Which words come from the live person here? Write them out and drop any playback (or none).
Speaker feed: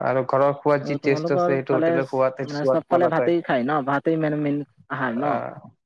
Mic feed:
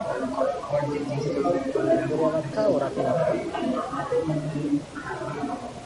মান দুপৰীয়া ভাত খাও ৰাতি ভাত খাও।